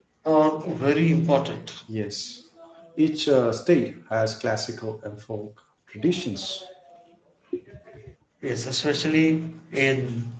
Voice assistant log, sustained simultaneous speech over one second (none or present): none